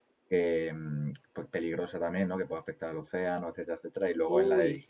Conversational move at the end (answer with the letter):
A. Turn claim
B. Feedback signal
B